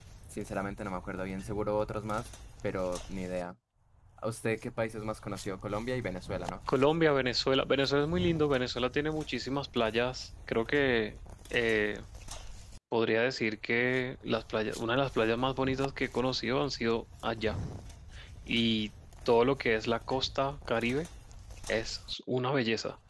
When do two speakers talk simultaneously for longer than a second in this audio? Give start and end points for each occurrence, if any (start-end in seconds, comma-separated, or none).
none